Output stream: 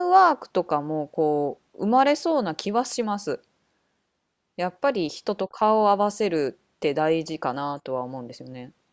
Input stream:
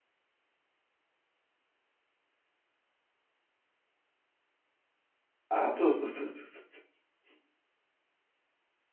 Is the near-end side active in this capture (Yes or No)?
Yes